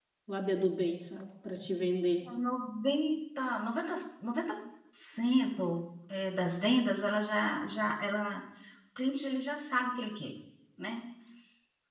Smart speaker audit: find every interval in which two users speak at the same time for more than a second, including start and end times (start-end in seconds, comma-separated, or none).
none